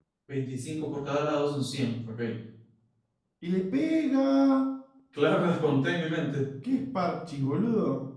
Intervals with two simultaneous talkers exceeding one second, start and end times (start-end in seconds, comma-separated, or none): none